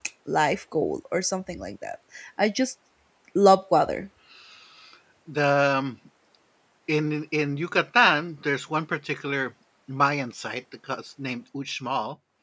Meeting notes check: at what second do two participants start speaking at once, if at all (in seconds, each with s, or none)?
none